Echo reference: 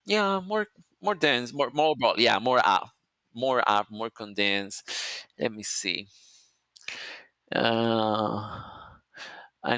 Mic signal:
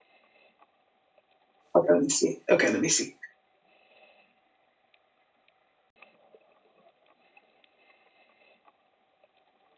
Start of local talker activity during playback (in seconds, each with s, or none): 1.7 s